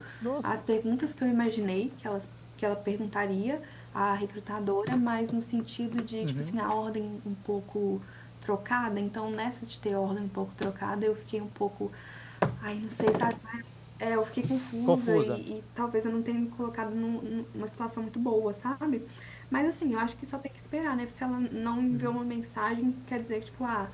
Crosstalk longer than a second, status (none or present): none